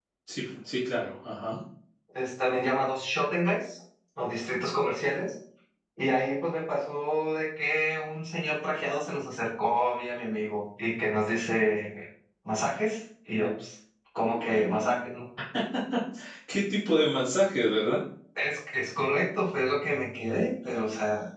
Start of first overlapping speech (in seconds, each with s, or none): none